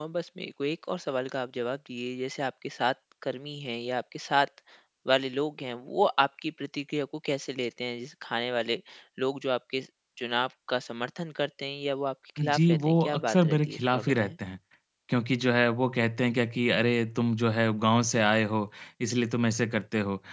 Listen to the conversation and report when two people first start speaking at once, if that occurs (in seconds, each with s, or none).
12.4 s